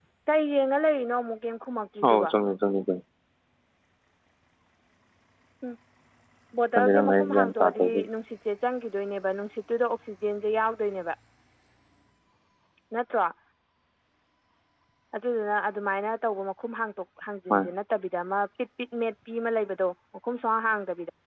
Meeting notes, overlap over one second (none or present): present